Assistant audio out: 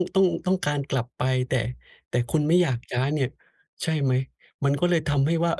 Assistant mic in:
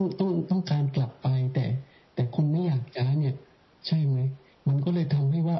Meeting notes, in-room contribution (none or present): none